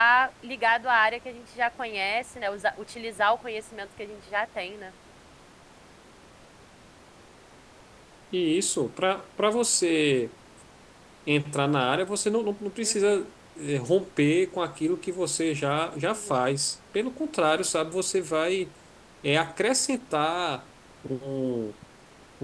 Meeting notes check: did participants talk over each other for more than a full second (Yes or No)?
No